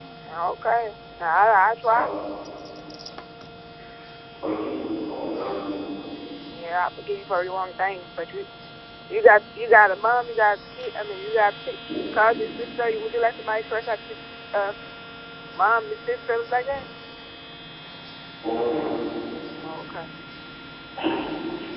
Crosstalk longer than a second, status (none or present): none